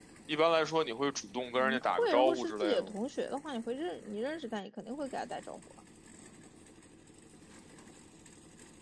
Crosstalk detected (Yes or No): Yes